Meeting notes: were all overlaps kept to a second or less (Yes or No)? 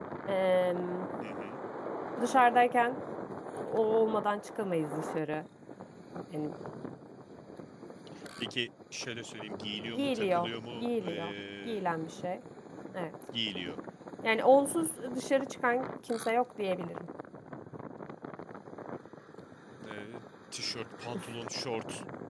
No